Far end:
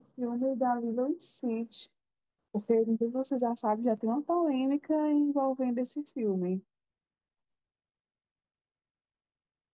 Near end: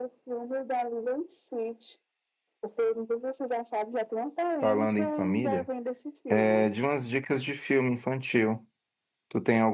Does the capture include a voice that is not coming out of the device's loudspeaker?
Yes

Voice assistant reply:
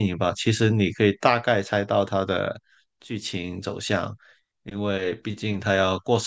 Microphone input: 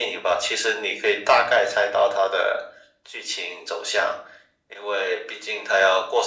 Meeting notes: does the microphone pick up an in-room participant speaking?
No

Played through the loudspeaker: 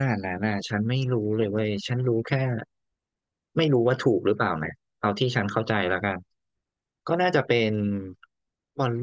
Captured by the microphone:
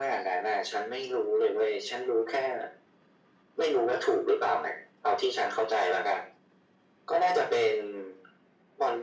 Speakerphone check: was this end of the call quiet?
Yes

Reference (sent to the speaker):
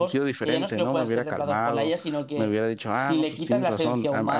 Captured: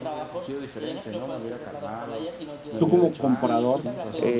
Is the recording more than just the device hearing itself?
Yes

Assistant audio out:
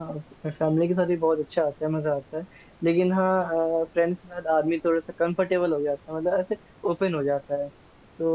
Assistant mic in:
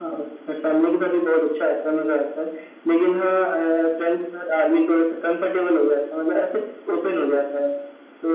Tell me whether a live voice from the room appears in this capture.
No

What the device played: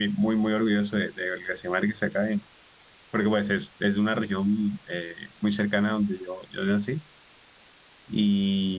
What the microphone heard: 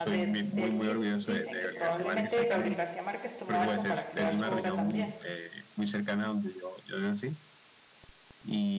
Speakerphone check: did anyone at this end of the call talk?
Yes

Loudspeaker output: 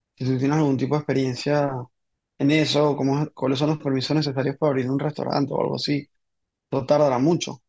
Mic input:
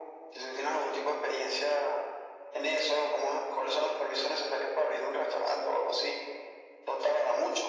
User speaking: No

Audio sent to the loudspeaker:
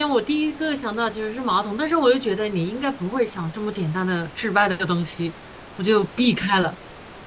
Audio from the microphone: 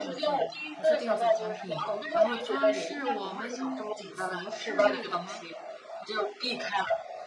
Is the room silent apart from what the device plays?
No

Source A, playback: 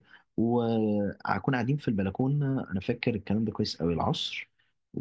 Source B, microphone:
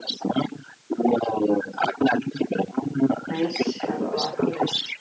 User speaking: Yes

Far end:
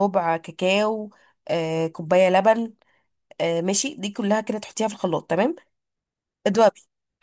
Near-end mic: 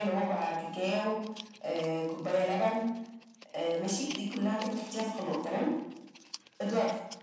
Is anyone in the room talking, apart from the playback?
No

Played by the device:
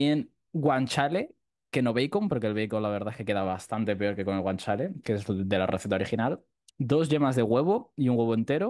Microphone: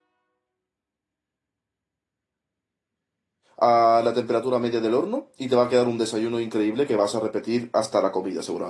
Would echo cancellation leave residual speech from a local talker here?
Yes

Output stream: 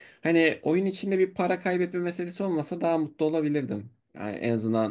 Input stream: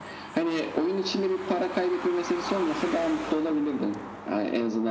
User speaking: No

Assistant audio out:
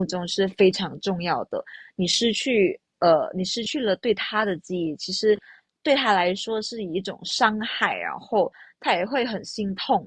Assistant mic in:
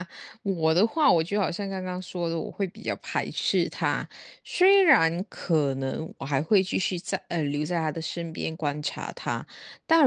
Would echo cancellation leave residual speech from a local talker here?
Yes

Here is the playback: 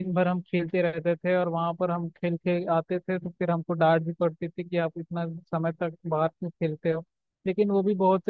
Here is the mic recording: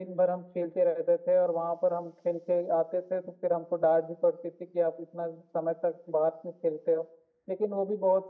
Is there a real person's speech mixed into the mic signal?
No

